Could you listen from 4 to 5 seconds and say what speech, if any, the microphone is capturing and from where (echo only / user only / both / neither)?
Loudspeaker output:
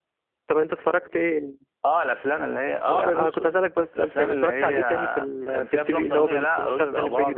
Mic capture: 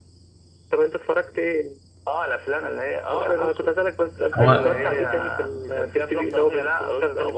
both